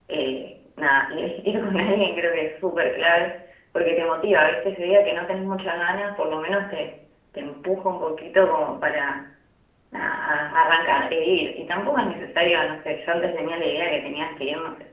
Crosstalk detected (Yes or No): No